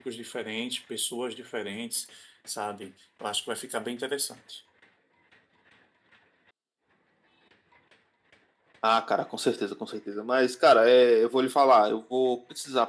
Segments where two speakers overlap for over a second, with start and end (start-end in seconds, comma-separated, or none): none